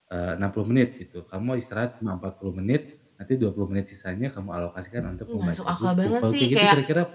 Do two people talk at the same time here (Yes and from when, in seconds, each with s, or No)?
Yes, from 5.3 s